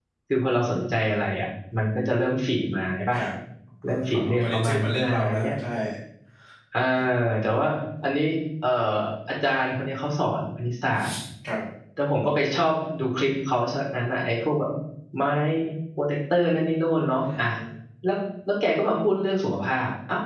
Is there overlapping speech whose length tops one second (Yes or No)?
Yes